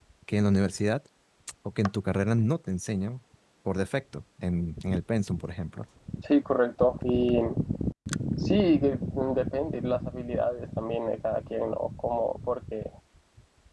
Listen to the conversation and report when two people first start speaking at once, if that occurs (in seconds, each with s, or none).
none